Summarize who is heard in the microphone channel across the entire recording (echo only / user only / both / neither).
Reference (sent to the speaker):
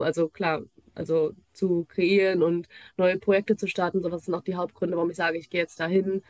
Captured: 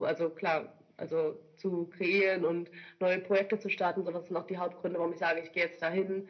echo only